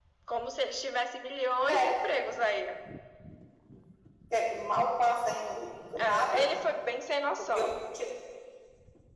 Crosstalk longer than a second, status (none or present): none